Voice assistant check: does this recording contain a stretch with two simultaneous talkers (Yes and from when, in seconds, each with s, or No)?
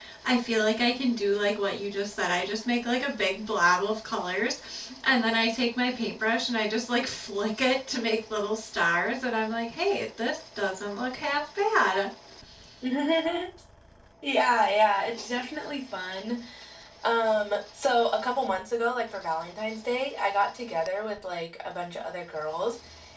No